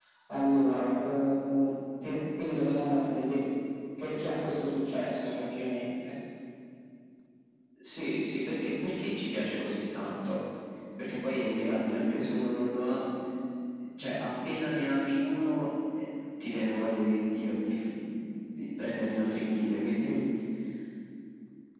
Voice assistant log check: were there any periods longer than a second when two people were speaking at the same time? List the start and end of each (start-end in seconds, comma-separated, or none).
none